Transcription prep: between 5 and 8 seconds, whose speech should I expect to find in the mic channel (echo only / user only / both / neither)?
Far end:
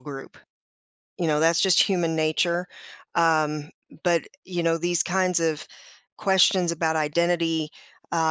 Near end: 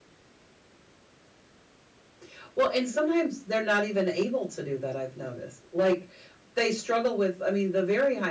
user only